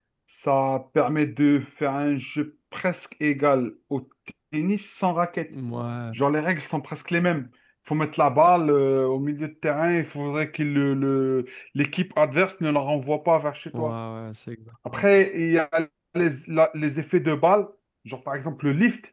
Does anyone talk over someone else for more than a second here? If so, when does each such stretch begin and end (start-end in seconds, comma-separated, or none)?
none